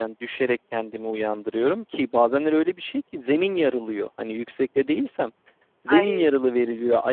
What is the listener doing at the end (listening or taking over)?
listening